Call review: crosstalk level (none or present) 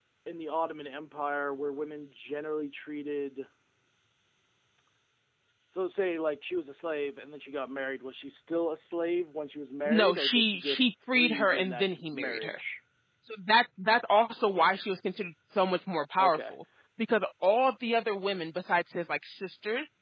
present